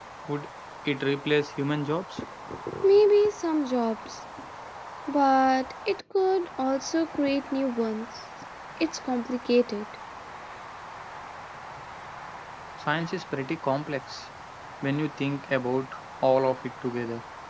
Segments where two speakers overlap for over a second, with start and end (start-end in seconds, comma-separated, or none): none